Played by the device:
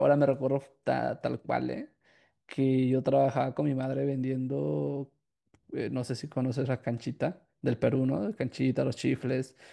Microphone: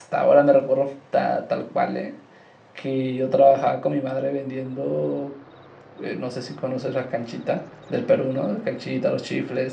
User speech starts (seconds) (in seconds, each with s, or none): none